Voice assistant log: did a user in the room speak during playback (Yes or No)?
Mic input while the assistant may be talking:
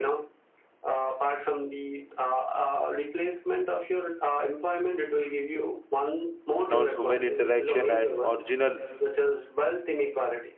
Yes